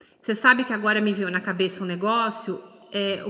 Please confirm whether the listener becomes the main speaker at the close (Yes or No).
No